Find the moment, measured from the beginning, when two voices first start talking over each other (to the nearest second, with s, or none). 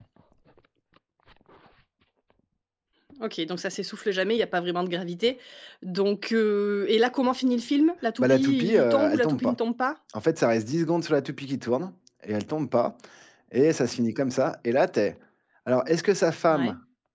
8 s